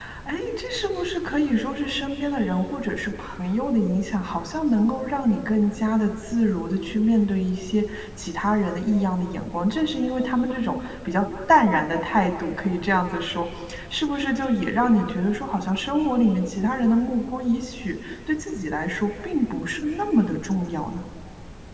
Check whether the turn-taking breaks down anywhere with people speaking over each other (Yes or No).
No